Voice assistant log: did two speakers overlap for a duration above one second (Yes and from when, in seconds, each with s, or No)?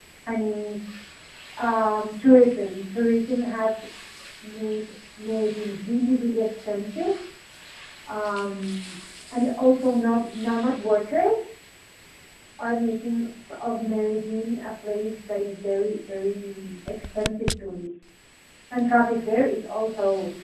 No